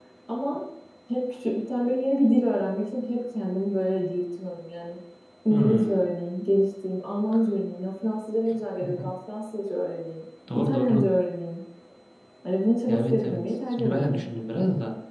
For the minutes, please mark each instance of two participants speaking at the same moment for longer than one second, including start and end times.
12.9-14.3

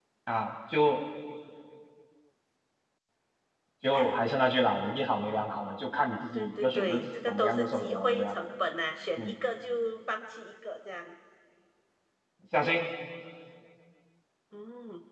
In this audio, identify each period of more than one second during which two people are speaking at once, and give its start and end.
6.3-8.3

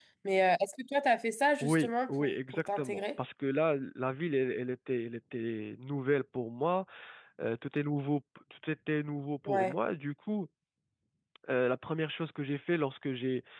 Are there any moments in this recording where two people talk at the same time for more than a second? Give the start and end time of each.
1.6-3.0

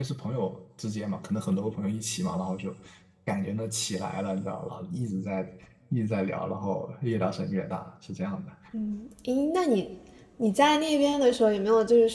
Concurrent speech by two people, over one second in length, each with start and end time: none

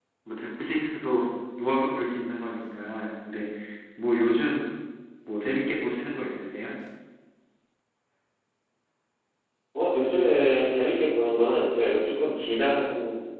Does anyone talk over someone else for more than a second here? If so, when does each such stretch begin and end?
none

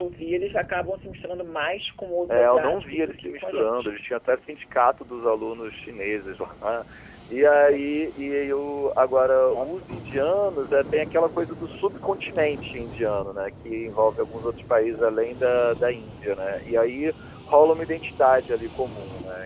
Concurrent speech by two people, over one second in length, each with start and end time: 2.3-3.9

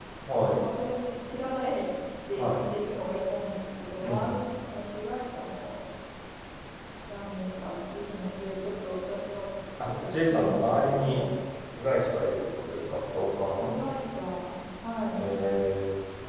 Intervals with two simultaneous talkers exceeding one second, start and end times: 9.9-11.2

